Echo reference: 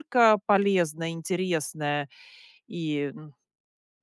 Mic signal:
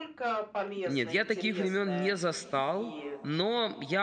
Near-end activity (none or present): present